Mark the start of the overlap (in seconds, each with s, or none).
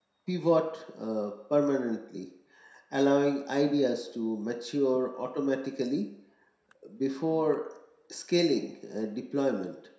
none